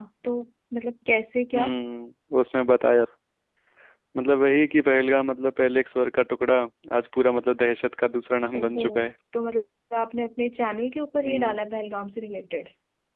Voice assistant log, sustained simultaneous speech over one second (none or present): none